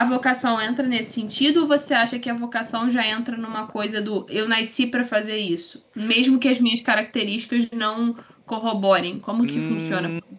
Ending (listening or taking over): taking over